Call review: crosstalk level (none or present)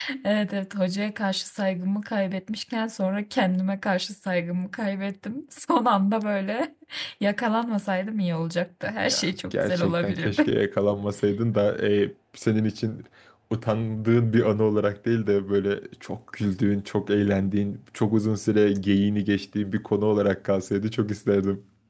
present